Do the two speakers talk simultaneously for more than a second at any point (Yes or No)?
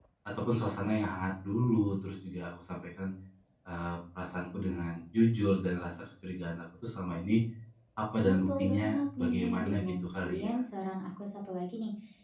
Yes